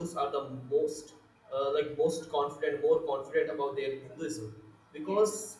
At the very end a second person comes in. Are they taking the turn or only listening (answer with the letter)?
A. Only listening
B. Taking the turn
A